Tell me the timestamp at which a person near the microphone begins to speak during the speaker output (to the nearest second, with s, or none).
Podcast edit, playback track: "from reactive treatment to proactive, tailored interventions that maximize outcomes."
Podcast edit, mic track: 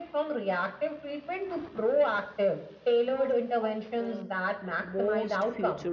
3 s